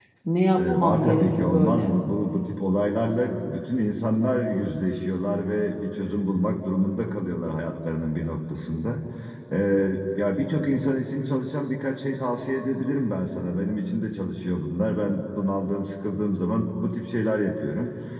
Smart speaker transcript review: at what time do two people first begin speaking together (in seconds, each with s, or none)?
0.6 s